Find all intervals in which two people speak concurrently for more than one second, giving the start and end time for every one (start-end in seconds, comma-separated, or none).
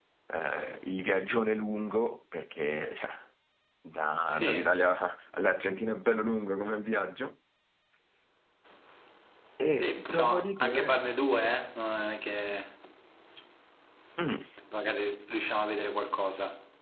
9.7-11.0